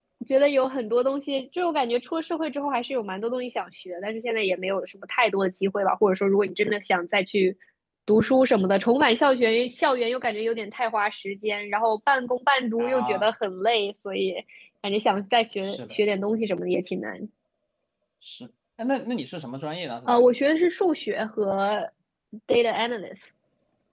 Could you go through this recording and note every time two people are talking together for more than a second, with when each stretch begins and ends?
none

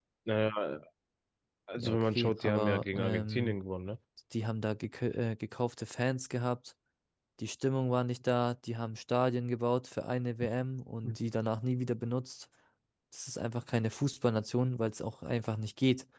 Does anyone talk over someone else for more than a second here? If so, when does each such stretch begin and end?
1.8-3.6

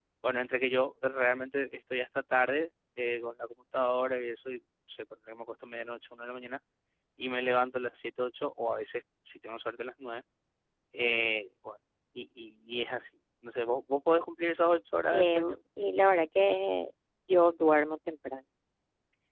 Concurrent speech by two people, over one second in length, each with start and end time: none

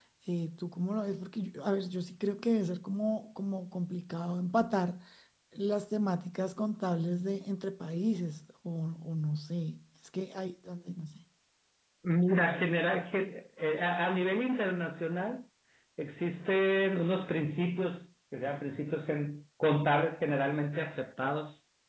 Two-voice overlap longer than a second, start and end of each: none

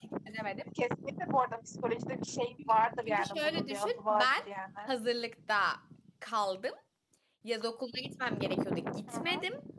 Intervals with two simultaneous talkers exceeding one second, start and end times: 3.1-4.3

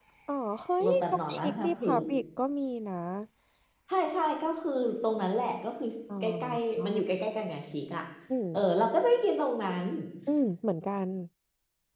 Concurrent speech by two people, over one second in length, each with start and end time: 0.8-2.0

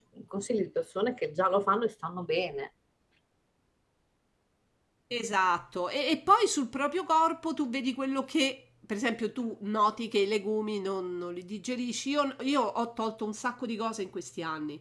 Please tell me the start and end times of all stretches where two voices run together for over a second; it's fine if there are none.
none

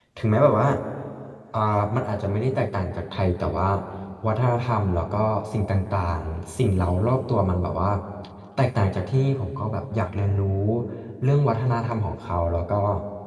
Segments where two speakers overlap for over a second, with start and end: none

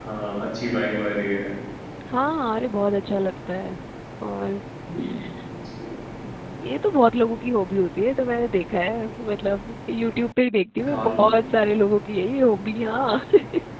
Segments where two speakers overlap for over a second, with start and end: none

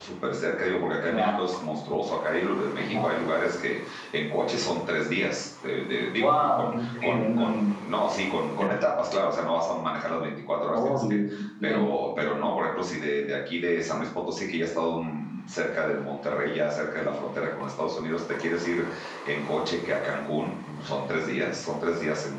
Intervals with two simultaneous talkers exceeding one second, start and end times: 6.2-7.6

